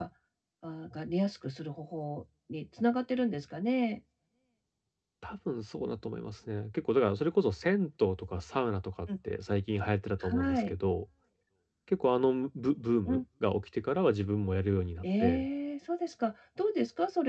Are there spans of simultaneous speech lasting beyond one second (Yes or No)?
No